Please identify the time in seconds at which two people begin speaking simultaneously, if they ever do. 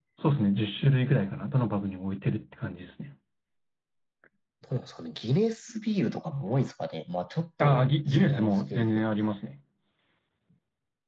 7.6 s

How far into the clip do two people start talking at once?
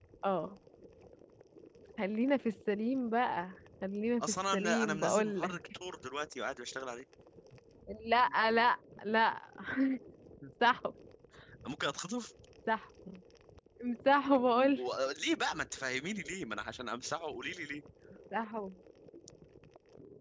4.2 s

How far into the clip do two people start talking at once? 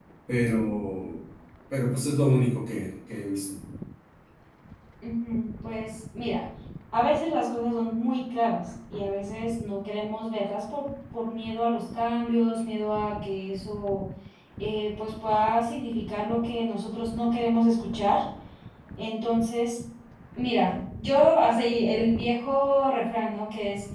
none

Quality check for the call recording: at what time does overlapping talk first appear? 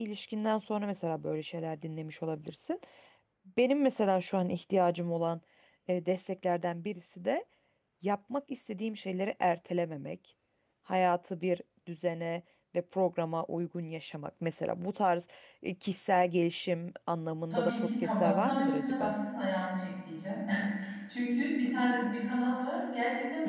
17.5 s

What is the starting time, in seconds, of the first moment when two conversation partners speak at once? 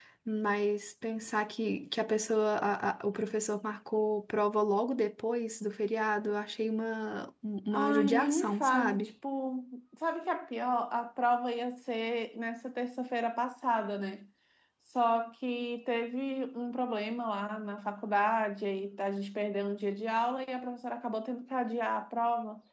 7.7 s

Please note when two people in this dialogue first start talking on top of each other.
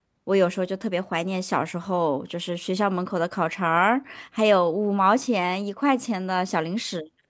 none

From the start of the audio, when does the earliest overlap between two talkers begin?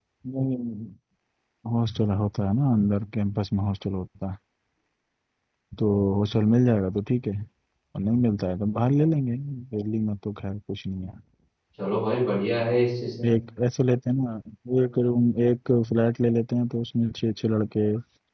none

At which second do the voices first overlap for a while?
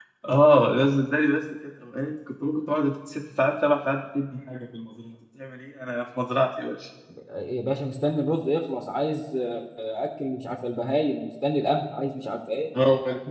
none

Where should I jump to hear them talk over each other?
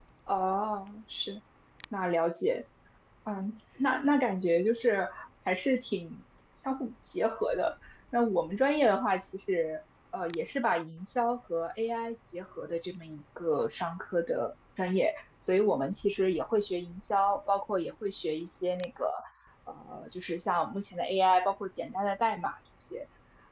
none

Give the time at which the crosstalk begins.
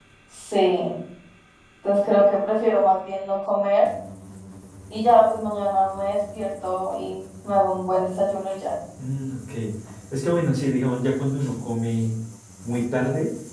none

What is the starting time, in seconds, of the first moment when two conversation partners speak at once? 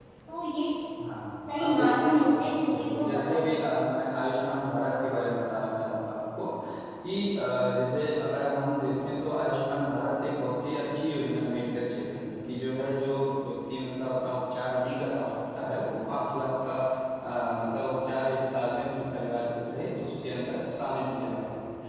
1.6 s

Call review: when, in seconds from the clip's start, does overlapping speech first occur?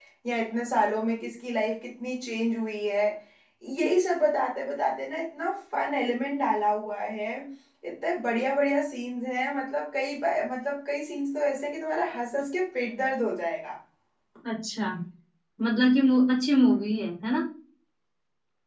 none

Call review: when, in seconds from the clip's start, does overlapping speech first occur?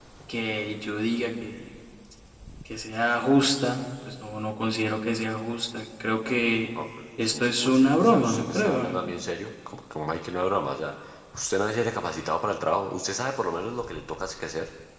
7.2 s

